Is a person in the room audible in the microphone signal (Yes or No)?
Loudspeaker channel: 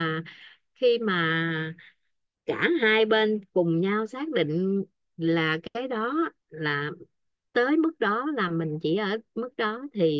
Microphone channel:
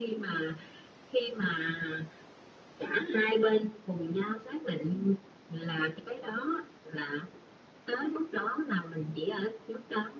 No